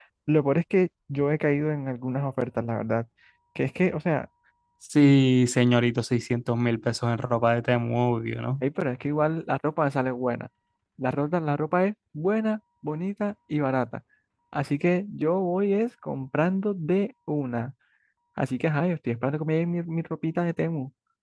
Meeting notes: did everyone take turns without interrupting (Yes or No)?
Yes